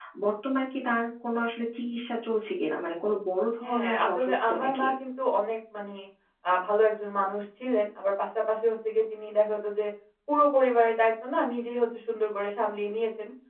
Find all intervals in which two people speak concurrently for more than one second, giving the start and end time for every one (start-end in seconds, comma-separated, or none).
3.7-4.9